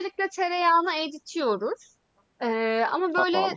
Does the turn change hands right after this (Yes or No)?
No